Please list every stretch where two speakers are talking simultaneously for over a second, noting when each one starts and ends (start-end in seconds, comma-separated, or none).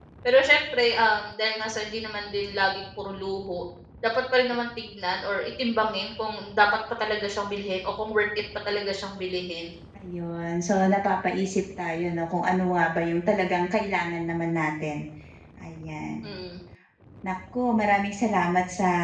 none